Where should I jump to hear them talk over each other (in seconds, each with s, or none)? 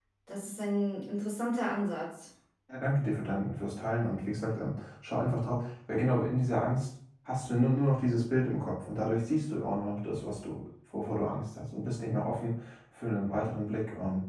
none